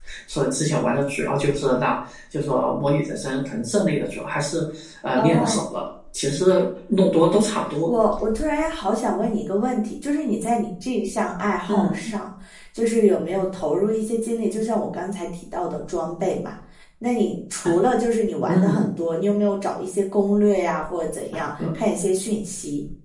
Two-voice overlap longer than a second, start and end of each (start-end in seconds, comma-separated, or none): none